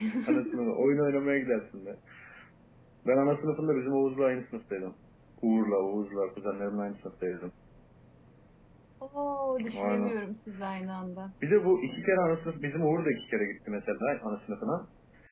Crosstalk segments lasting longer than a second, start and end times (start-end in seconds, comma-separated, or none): none